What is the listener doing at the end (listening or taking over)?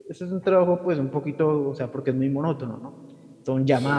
listening